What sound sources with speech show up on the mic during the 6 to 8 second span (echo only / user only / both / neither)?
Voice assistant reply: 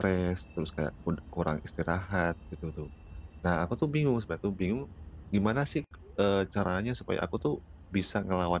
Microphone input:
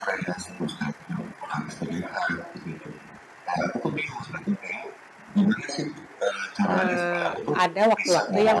both